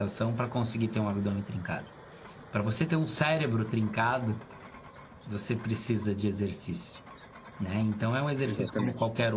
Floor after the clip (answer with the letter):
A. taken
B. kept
B